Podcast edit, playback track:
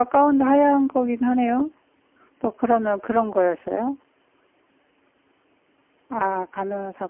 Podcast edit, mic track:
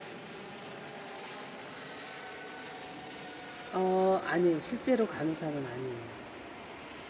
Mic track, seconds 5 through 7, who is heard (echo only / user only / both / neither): user only